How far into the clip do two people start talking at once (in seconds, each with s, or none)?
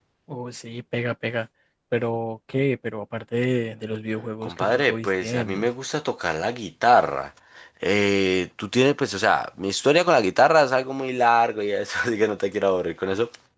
4.4 s